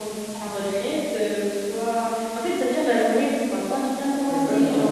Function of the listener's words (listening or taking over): taking over